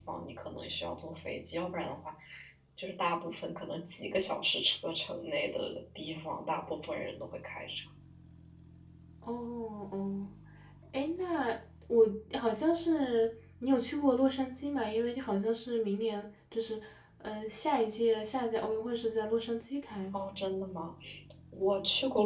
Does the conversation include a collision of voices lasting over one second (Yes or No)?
No